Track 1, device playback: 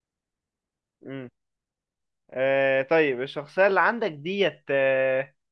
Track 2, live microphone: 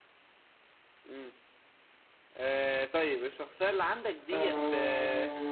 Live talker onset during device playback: 4 s

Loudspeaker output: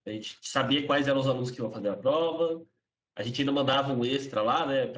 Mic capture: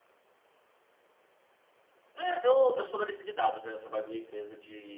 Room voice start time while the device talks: 2 s

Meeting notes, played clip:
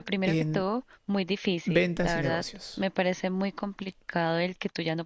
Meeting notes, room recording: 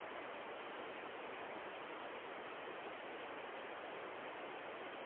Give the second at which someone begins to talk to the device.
none

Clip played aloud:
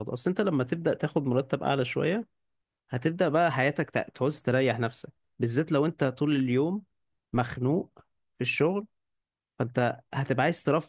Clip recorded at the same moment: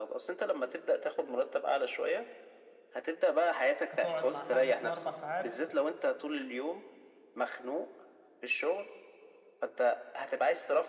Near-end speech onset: 4 s

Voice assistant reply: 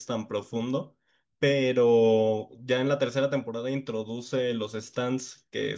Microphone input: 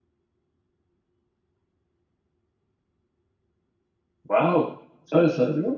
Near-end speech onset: 4 s

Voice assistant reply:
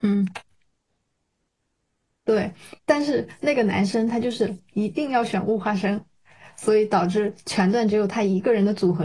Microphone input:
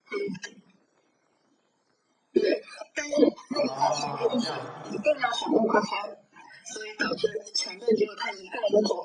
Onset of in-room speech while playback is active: 3 s

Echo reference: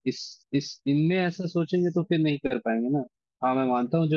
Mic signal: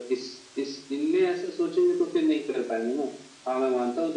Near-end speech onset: none

